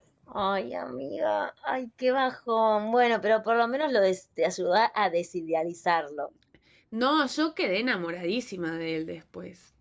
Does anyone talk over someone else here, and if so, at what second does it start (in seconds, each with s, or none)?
none